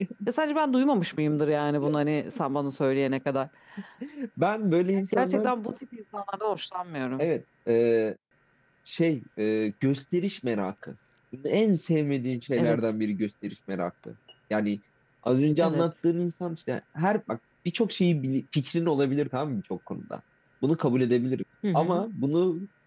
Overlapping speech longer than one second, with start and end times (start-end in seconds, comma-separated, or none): none